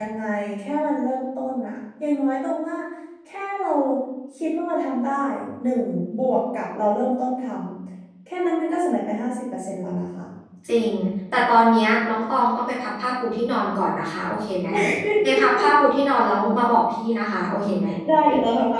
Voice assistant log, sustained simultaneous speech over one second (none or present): none